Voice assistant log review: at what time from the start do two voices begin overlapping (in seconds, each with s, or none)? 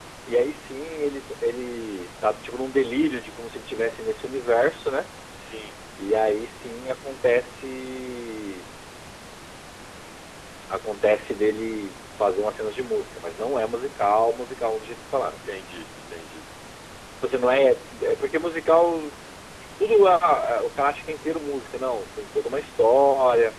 none